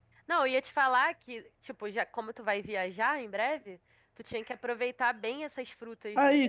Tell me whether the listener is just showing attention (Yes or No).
No